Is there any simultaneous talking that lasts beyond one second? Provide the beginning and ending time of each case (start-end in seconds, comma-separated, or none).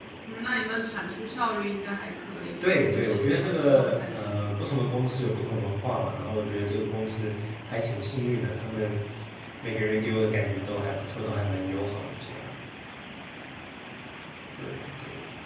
2.6-4.5